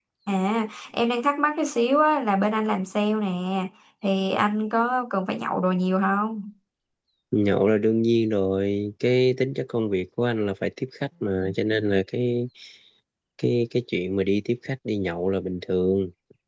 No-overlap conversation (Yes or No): Yes